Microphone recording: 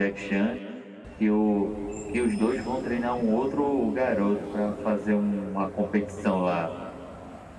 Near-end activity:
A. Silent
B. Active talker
A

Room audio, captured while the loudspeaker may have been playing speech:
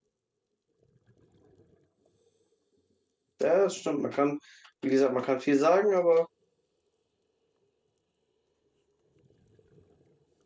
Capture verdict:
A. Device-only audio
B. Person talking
B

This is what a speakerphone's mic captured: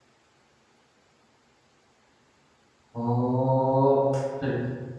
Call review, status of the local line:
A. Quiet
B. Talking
B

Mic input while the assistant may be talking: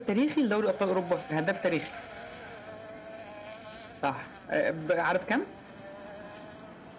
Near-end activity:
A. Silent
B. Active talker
A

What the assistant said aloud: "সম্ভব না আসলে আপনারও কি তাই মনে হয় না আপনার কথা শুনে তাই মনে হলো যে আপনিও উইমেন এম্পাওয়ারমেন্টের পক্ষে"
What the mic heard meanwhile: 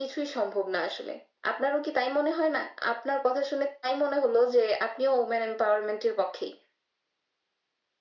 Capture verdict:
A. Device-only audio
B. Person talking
A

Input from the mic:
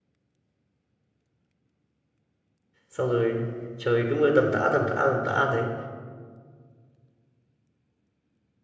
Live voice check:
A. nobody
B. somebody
B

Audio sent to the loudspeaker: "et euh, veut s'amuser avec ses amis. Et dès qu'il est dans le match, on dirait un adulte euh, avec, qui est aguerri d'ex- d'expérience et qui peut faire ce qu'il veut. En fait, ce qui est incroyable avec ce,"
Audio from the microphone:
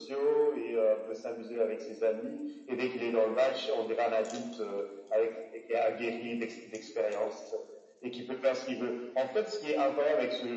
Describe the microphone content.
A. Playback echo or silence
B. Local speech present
A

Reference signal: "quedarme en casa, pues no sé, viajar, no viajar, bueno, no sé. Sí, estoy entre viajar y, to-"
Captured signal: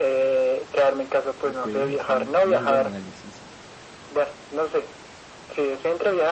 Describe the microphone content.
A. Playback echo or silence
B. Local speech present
B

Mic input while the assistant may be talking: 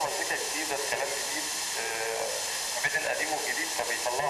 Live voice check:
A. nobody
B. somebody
A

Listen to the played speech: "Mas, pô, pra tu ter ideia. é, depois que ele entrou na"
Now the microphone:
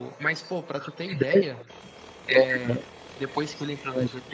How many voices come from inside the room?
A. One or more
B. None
B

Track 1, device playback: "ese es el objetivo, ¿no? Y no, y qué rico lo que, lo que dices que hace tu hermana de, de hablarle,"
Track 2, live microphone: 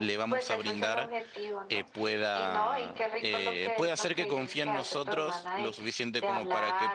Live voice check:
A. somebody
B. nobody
A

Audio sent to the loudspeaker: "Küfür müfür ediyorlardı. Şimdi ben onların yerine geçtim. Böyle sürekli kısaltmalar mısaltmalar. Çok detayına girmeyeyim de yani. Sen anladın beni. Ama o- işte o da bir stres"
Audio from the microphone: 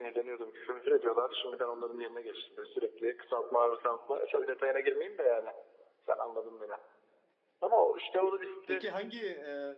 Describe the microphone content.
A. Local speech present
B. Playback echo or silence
A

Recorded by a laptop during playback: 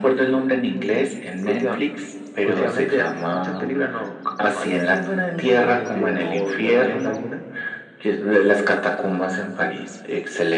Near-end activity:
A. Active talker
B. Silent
A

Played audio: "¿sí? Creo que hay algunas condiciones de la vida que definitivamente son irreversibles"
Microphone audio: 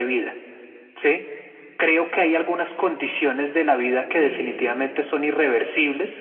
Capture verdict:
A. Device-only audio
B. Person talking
B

